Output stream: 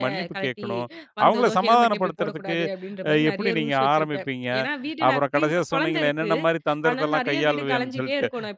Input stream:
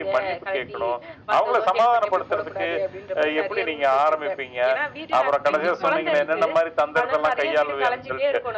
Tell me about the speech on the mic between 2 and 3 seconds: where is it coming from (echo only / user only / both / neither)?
echo only